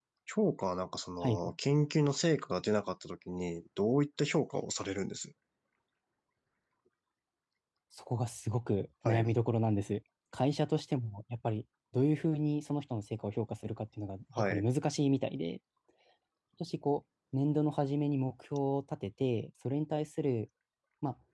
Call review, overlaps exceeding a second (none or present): none